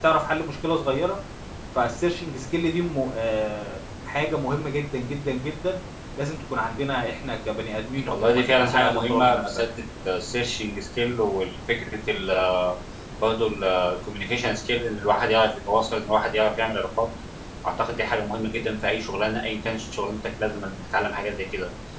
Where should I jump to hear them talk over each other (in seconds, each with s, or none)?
8.0 s